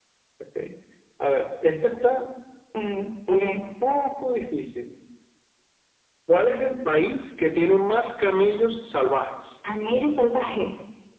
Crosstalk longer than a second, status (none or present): none